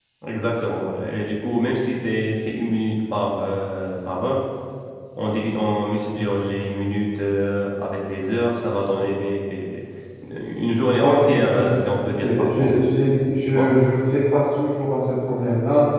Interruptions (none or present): present